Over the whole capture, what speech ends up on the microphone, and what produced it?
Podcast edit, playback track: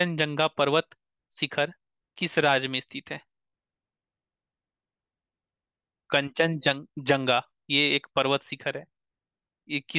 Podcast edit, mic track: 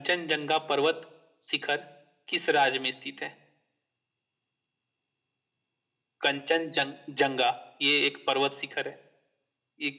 echo only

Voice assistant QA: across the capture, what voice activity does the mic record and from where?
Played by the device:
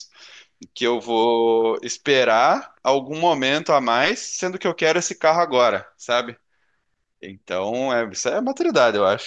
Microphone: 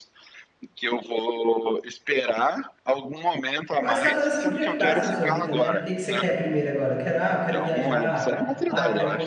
both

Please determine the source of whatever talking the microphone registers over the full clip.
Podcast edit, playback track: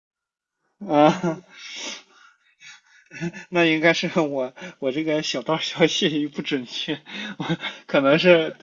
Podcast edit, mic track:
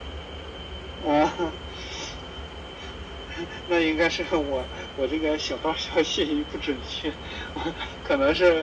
echo only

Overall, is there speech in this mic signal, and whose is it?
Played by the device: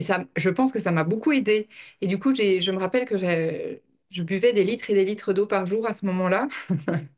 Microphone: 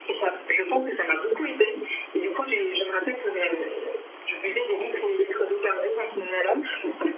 echo only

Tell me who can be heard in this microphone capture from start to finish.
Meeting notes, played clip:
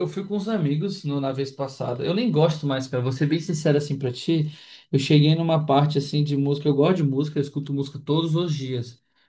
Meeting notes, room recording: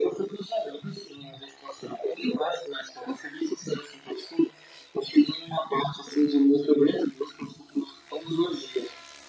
echo only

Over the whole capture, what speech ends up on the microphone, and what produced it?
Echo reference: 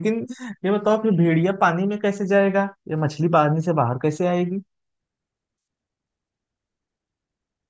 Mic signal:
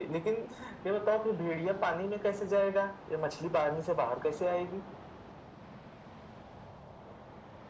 echo only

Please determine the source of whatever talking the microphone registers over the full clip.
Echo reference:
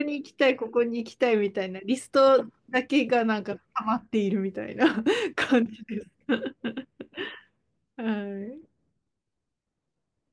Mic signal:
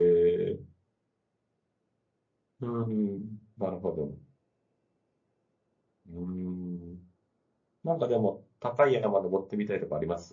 user only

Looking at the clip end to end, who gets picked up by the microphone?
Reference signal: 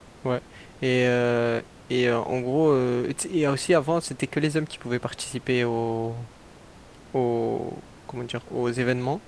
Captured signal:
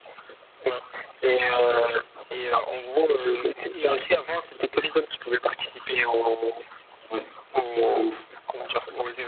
both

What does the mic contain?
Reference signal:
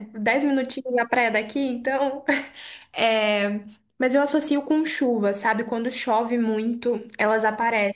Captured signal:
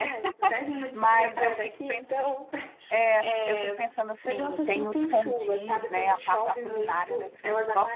both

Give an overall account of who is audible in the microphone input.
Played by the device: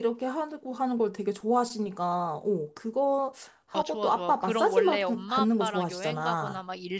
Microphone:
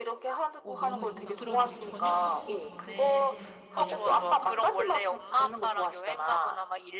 both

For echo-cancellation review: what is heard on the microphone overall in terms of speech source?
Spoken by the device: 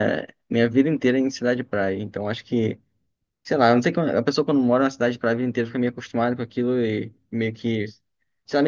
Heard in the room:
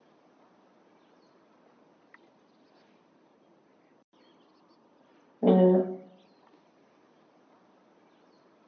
user only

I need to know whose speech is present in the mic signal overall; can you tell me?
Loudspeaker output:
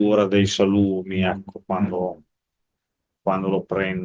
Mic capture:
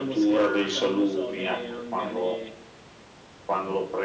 both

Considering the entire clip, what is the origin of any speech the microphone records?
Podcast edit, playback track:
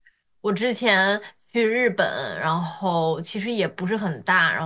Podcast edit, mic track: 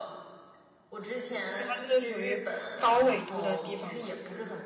both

